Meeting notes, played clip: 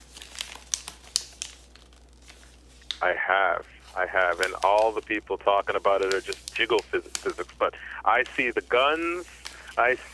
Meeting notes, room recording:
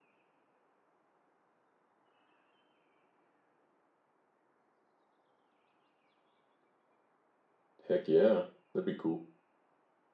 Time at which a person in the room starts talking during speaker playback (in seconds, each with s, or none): 7.8 s